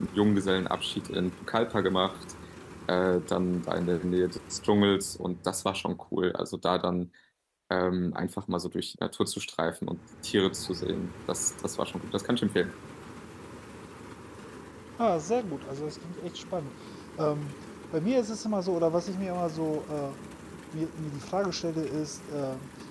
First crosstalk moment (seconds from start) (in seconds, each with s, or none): none